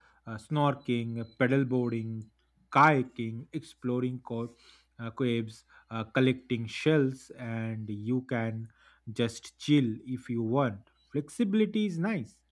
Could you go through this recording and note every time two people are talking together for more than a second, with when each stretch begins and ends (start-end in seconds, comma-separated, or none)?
none